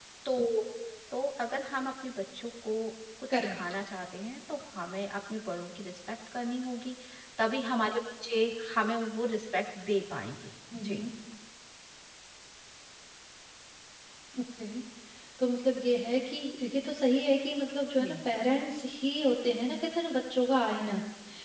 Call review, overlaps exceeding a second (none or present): none